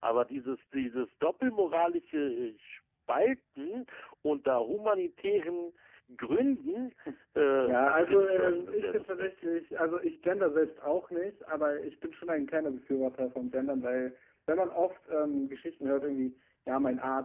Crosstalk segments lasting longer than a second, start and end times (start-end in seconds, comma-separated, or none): 7.6-9.3